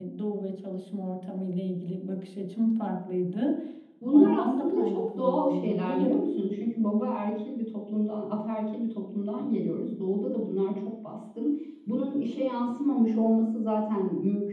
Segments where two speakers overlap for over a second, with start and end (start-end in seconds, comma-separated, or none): 4.1-6.1